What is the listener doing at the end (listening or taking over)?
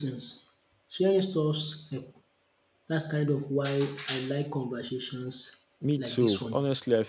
taking over